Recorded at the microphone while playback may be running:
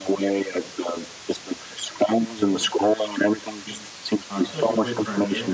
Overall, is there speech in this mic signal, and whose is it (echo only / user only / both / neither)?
both